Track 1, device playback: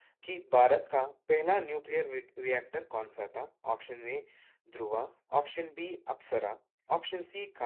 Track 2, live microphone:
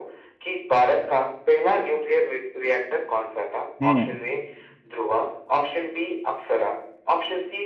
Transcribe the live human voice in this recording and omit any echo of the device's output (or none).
हम्म